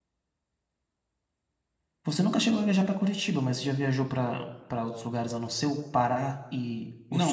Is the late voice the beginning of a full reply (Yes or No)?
Yes